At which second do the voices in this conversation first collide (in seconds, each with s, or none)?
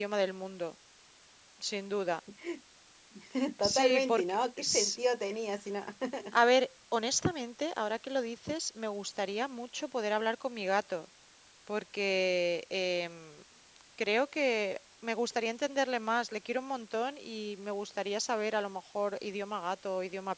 3.7 s